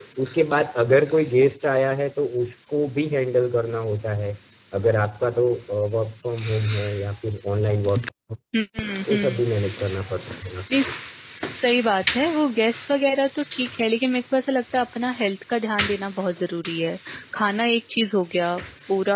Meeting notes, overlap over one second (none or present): none